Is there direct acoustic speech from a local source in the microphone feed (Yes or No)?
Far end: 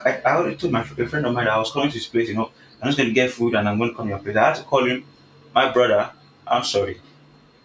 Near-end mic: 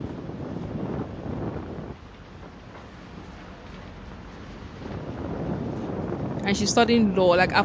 Yes